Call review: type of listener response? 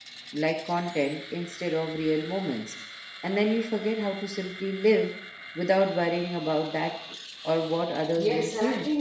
taking over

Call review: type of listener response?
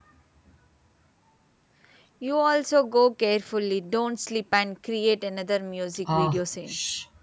taking over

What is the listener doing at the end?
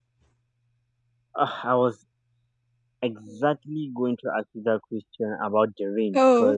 listening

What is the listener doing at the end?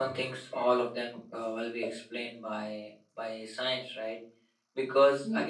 listening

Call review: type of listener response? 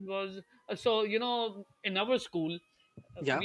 listening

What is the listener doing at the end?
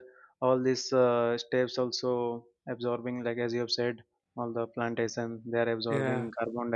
listening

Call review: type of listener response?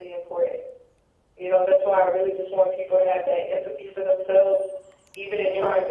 listening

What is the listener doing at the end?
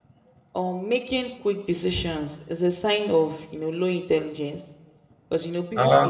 listening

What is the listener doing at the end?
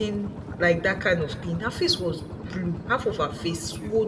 listening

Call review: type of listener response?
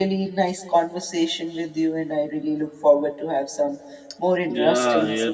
taking over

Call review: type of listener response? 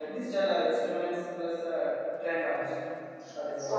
taking over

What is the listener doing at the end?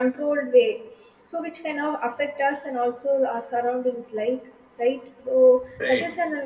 listening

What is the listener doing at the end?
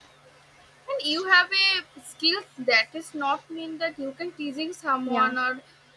listening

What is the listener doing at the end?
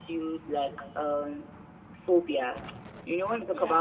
listening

